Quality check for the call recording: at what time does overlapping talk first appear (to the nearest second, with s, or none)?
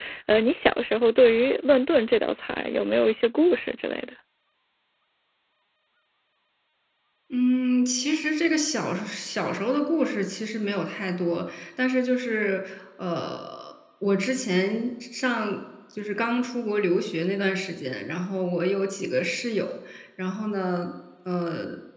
none